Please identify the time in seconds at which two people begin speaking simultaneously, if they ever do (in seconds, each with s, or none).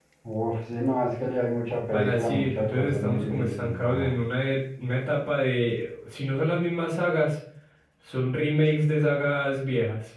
1.9 s